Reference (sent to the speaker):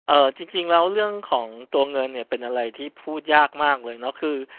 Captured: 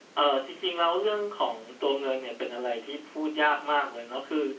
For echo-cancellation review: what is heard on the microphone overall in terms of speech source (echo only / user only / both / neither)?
echo only